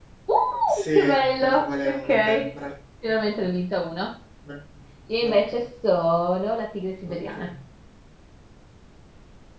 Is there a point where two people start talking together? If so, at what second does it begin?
0.7 s

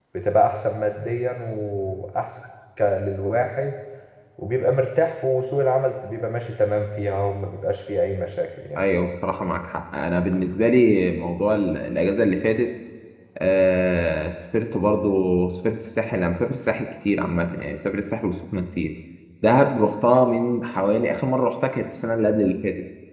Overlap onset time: none

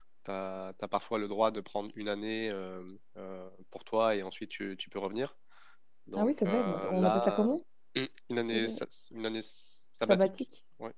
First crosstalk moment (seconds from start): 6.2 s

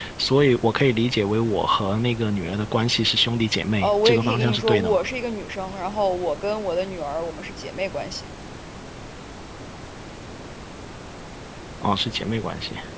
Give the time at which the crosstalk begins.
3.8 s

